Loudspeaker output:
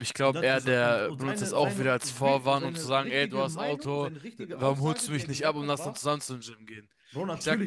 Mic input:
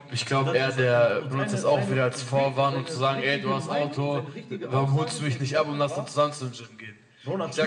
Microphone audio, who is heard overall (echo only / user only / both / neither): echo only